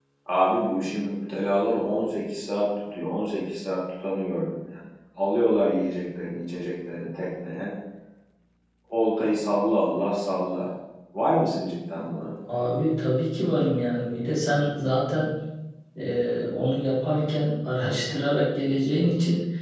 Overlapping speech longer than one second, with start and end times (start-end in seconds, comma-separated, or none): none